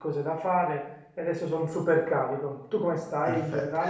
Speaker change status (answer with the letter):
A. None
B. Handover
B